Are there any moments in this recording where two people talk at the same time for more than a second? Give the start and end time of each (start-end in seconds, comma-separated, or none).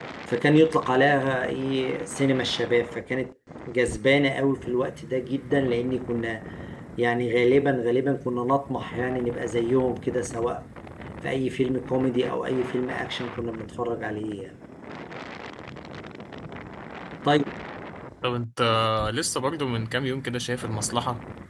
none